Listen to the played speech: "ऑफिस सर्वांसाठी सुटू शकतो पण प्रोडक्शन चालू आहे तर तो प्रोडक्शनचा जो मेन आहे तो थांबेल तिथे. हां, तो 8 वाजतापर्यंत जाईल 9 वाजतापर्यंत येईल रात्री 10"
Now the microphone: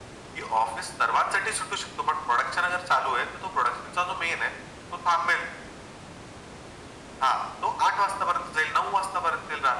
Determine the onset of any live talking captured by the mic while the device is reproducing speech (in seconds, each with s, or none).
none